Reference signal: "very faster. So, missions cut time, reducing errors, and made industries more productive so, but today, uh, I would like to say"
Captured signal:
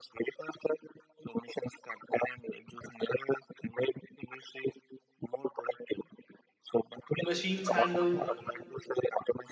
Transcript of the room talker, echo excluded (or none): Machines handle